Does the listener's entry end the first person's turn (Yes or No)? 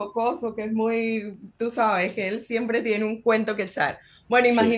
No